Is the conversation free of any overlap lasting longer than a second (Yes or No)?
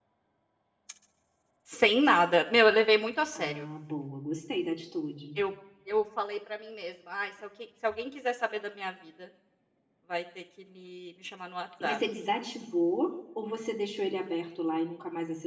Yes